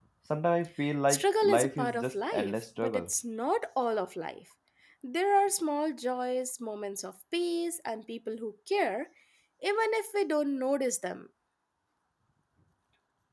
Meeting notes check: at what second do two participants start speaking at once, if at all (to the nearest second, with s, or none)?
1 s